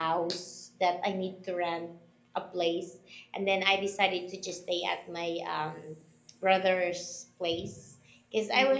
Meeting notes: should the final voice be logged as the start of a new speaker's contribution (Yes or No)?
No